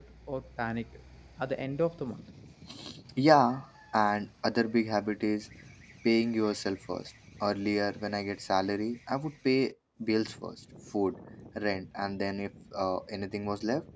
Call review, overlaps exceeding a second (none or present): none